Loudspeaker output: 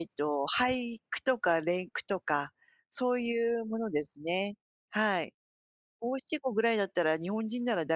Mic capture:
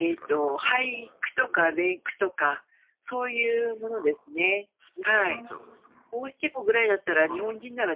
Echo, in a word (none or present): present